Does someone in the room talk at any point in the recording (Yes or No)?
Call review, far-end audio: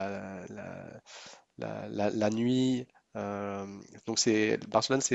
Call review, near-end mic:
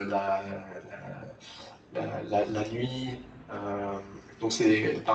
No